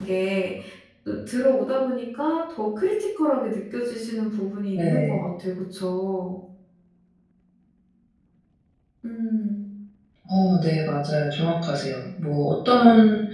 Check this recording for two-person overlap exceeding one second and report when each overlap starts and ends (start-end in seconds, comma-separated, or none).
none